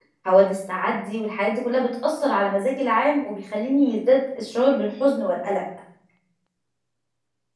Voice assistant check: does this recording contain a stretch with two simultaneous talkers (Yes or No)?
No